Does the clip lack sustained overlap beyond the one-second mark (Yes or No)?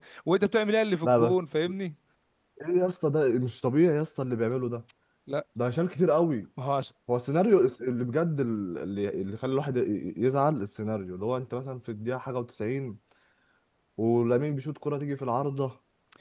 Yes